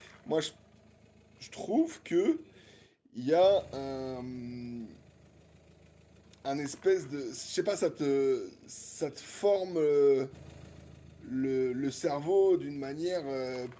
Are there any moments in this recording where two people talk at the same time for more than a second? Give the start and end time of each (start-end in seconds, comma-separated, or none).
none